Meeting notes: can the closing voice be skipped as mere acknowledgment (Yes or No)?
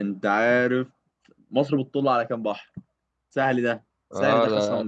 No